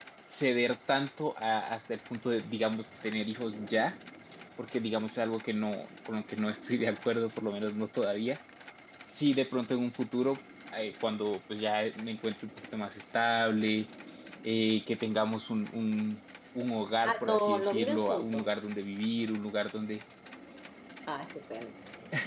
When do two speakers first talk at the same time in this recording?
17.0 s

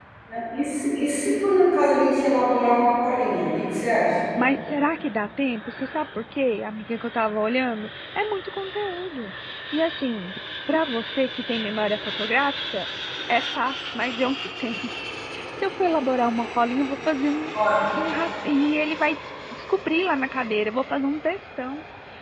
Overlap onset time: none

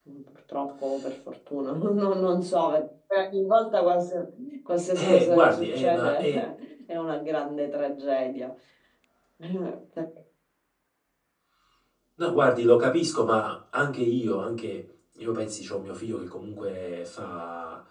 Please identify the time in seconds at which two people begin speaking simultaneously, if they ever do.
5.0 s

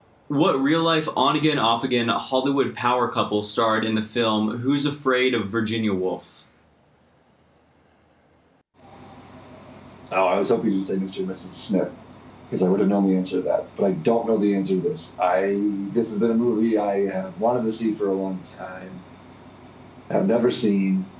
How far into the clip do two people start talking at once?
none

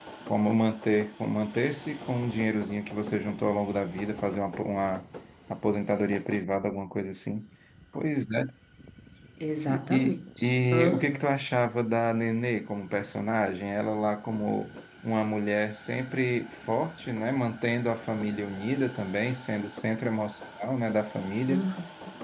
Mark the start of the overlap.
9.7 s

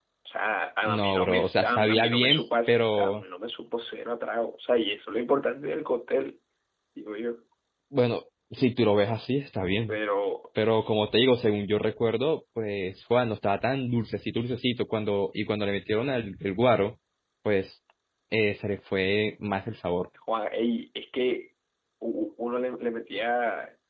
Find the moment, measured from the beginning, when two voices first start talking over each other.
0.8 s

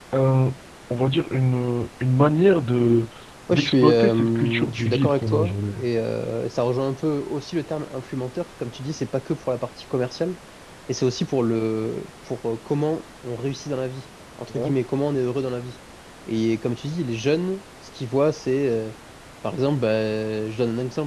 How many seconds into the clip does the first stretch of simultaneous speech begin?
3.5 s

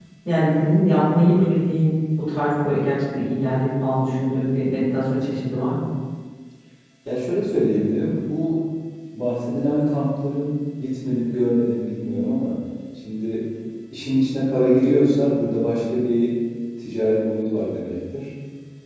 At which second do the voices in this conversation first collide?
none

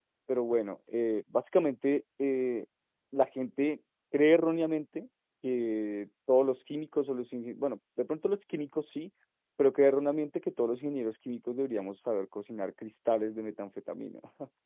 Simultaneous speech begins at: none

